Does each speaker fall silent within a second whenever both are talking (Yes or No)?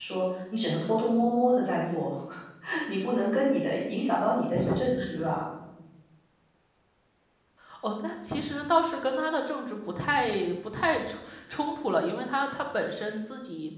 Yes